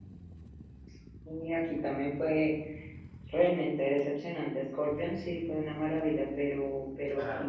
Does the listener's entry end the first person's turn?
No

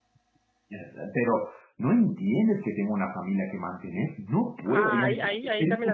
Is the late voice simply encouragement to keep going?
No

